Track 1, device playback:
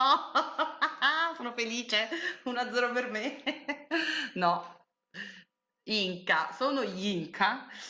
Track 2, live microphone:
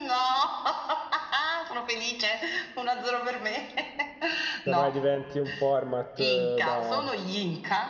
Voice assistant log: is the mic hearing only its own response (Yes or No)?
No